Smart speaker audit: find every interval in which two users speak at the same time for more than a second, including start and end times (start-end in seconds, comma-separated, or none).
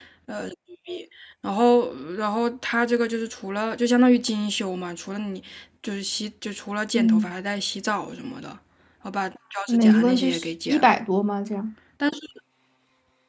9.7-10.9